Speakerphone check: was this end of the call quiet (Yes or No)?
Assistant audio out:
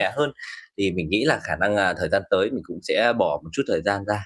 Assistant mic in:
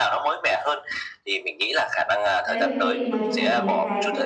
No